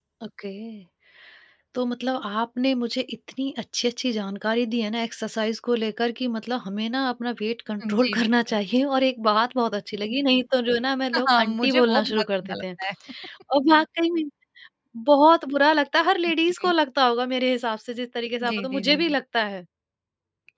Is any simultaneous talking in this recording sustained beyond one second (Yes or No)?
Yes